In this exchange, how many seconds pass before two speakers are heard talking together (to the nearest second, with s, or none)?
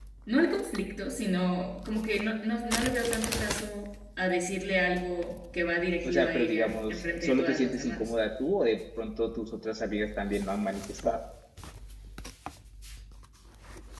6 s